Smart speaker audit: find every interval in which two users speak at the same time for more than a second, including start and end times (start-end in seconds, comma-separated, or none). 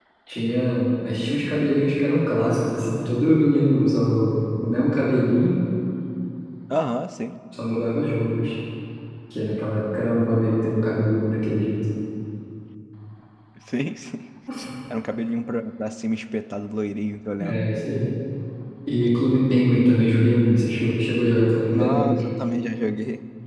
none